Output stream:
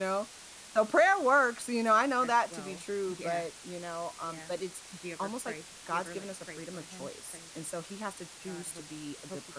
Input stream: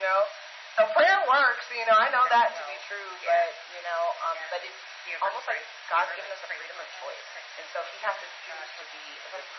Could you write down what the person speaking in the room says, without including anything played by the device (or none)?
none